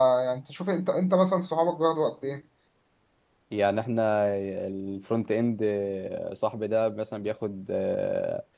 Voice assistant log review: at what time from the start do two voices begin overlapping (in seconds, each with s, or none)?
none